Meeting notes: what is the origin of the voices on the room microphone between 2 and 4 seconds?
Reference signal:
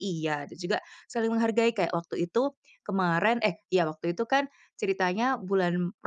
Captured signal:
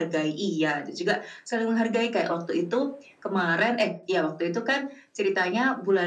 echo only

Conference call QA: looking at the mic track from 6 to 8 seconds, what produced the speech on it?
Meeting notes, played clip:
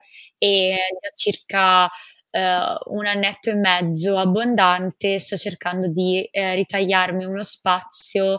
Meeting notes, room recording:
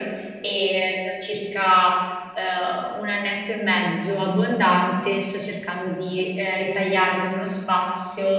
echo only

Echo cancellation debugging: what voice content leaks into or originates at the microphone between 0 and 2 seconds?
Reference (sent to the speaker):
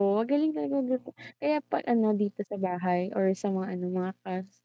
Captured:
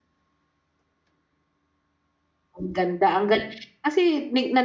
neither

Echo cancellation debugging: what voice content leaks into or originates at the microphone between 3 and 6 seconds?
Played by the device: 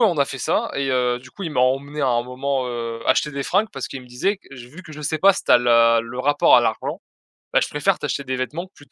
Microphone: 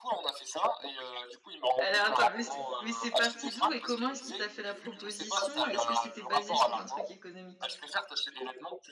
both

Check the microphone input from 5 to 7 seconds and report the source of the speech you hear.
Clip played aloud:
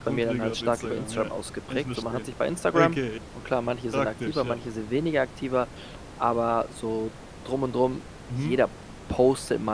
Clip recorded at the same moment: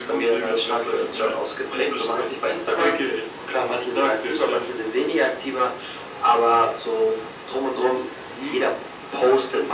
echo only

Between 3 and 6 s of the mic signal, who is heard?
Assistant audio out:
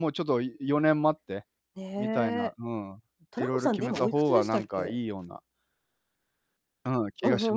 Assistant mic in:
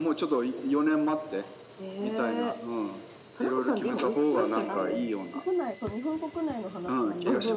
both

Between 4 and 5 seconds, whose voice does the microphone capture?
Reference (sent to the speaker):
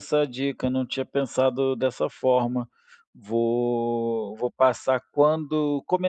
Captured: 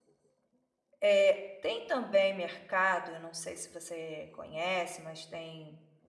user only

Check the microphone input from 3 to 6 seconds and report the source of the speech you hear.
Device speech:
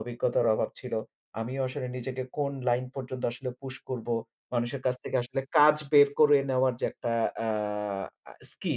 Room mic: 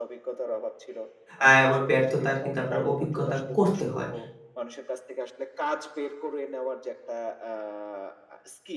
both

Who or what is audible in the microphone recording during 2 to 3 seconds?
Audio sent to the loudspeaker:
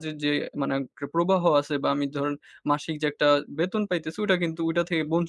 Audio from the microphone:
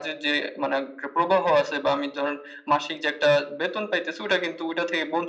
echo only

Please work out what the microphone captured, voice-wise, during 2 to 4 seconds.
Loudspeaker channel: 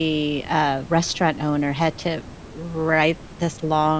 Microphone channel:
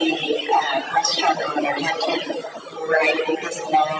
echo only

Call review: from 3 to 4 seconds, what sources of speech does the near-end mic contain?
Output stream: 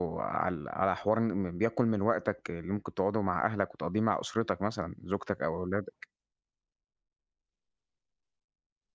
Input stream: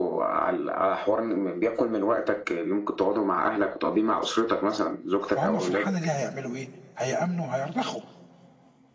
echo only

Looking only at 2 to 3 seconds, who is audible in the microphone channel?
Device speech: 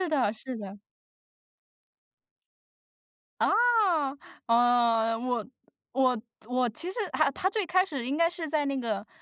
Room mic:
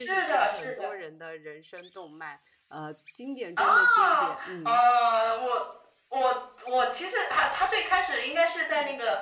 user only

